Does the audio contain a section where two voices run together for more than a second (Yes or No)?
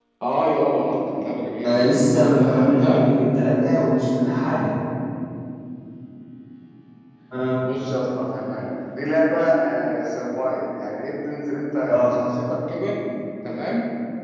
Yes